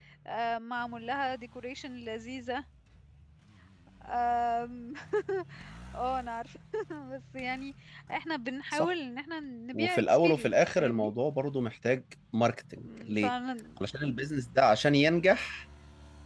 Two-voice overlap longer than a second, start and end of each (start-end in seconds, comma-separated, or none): 9.7-11.1